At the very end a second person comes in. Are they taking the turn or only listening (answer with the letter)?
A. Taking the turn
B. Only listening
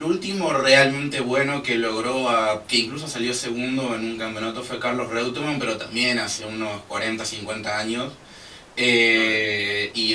B